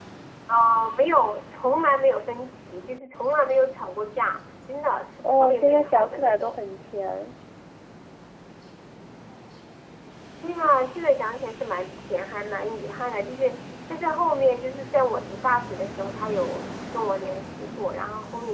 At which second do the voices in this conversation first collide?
5 s

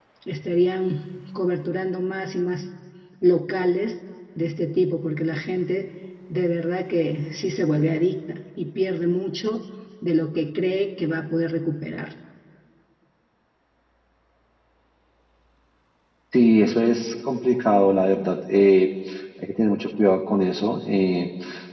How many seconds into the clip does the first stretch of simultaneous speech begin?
none

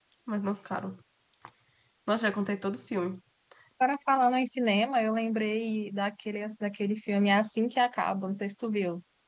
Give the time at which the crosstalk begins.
none

